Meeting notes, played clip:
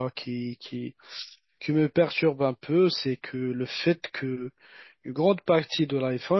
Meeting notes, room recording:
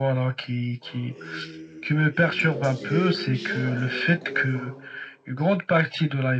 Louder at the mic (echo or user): echo